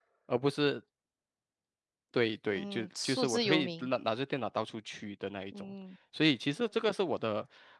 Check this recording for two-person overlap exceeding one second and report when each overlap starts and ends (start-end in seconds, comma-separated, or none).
2.6-3.9